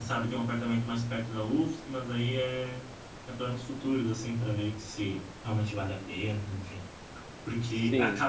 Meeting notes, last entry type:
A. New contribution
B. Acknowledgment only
B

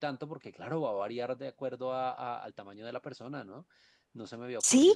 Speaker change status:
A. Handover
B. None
A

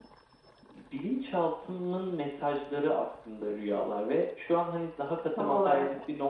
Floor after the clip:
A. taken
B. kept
B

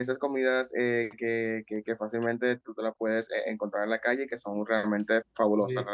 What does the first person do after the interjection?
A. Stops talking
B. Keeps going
B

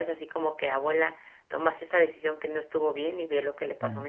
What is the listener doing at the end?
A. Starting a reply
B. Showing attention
B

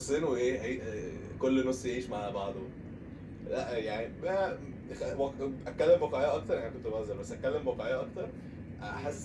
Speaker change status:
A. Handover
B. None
B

